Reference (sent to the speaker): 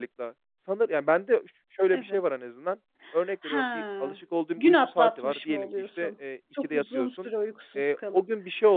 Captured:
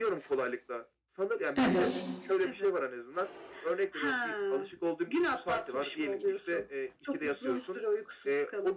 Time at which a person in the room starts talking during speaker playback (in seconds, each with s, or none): 1.6 s